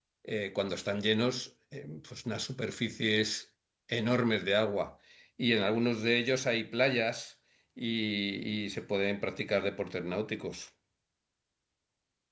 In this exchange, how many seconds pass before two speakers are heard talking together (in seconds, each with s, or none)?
none